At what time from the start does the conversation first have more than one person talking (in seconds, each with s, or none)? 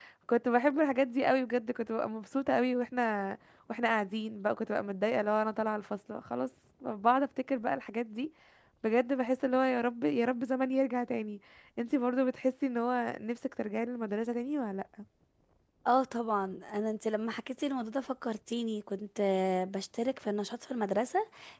none